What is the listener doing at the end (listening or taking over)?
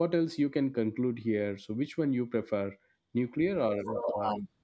taking over